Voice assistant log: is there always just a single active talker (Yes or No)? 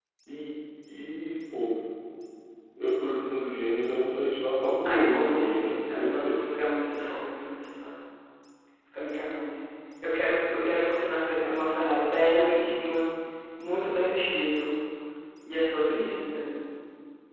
No